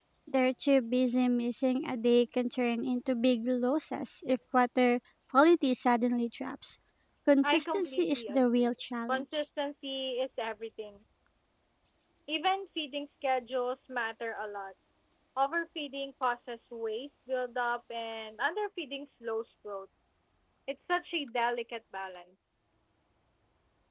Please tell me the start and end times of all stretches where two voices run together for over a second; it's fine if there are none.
7.4-8.7

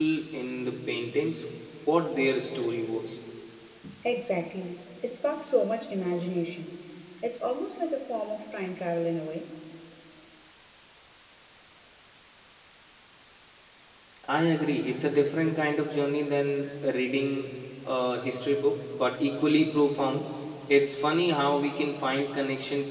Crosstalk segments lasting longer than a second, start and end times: none

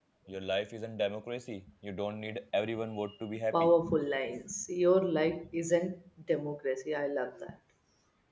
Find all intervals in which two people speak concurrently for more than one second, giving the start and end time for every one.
none

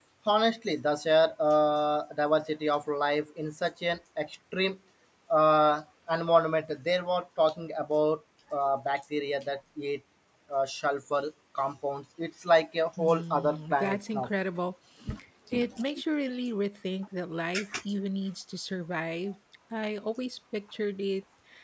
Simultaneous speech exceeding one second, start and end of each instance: 13.0-14.3

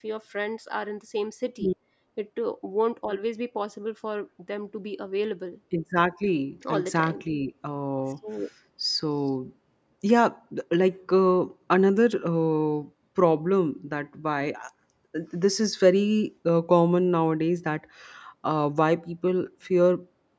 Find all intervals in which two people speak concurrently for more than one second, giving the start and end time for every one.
none

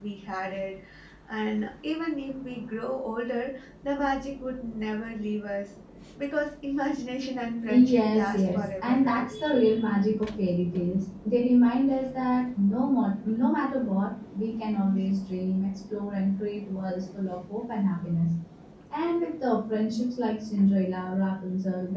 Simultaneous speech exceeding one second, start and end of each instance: 7.7-9.3

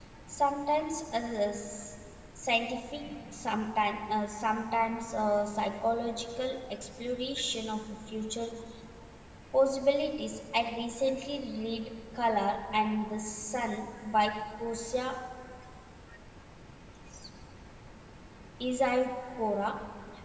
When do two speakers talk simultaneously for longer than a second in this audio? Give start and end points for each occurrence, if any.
none

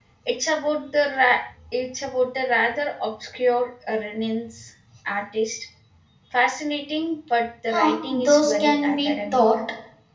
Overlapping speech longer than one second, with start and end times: 7.7-9.4

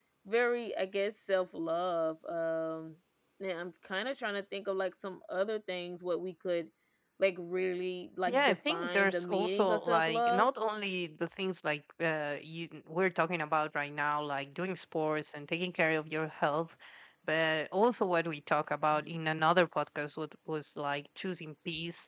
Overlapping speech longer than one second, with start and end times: 8.3-10.5

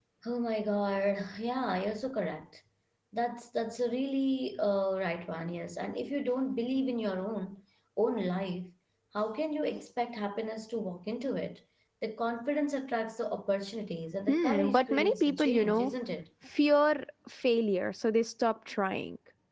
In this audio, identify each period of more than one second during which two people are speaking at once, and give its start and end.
14.3-15.9

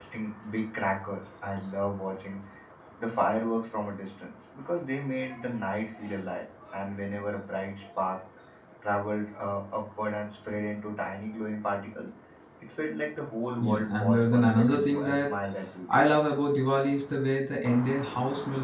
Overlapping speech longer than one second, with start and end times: 13.6-15.3

